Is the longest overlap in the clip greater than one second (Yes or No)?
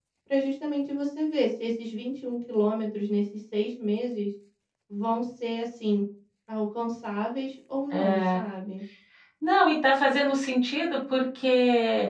No